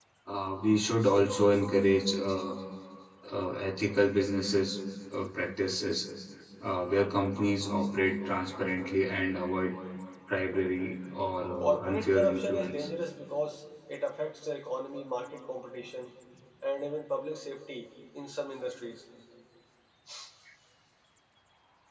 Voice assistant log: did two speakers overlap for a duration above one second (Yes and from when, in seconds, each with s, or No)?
Yes, from 11.5 s